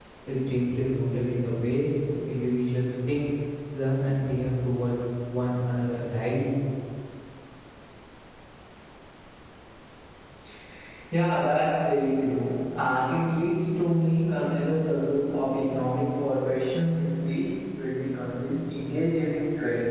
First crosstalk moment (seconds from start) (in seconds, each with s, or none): none